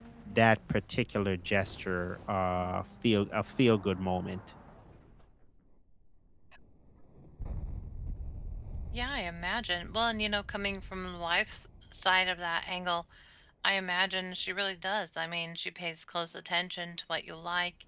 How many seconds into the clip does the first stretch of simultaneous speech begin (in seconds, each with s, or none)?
none